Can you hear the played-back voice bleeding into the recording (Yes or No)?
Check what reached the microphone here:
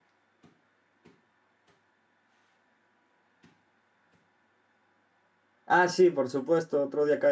No